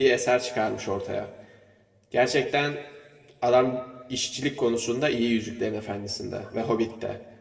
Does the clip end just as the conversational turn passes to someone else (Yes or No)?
No